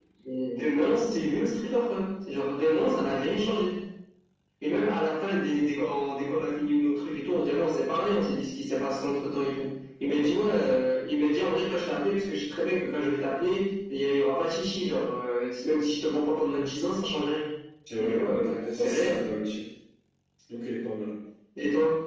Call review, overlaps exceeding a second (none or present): present